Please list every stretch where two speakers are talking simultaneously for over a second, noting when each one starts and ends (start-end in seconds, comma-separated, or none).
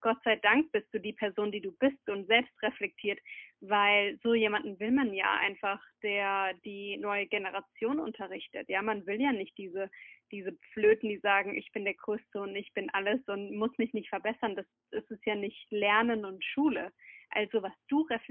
none